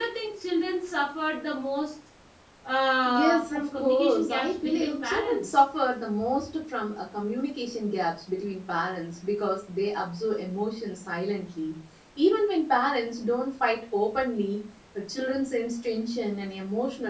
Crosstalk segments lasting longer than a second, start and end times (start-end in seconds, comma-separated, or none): 3.0-5.6